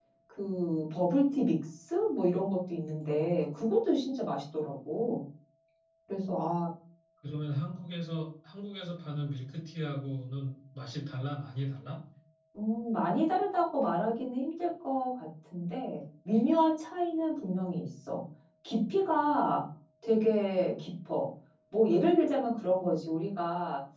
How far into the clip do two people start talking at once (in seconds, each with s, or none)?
none